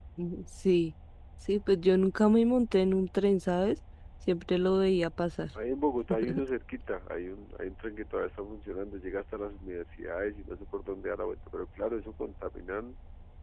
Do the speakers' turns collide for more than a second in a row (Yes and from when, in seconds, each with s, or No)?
No